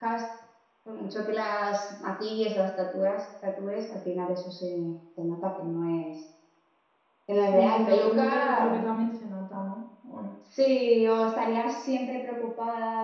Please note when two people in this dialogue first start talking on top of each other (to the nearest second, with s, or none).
7 s